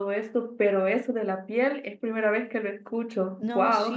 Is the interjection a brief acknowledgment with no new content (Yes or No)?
No